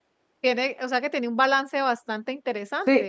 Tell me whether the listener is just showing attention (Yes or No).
No